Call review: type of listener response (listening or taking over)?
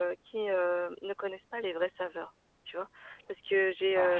listening